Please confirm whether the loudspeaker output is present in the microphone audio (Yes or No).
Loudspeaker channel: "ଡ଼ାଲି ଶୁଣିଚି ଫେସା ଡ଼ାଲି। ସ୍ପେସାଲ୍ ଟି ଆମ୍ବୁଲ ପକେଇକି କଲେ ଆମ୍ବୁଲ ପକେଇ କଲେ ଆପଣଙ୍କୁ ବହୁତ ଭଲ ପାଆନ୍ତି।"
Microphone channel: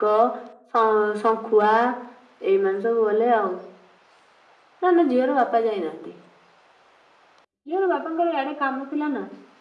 No